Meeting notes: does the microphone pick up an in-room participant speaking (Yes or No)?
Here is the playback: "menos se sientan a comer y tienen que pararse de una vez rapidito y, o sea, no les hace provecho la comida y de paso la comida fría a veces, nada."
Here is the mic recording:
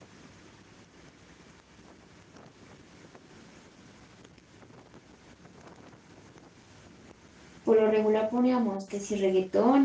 Yes